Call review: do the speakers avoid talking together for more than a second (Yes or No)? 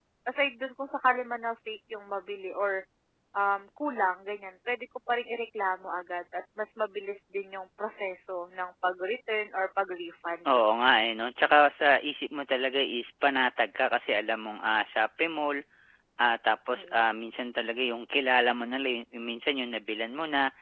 Yes